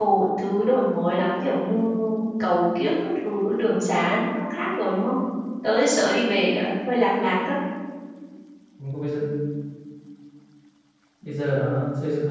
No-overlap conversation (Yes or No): Yes